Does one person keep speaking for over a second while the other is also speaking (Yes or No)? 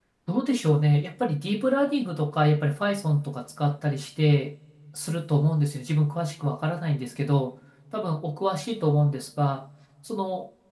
No